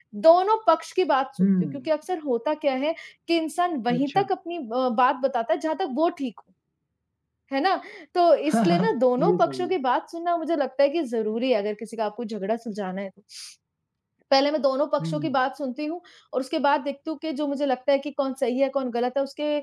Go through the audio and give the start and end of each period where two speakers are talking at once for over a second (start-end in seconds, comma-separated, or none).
8.5-9.7